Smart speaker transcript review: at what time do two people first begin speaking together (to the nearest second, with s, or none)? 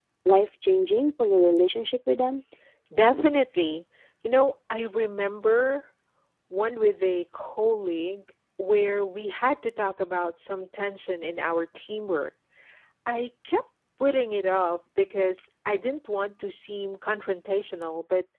none